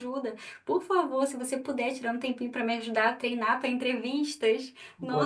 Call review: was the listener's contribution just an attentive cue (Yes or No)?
No